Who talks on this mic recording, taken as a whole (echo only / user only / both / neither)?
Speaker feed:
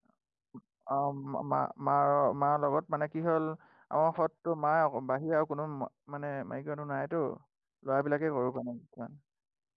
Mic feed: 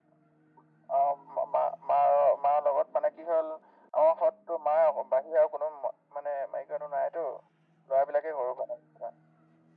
echo only